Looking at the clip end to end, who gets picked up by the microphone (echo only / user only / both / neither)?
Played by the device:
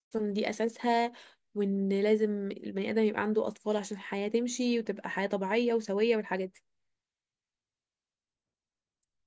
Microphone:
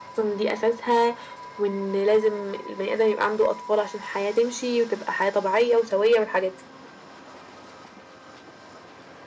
echo only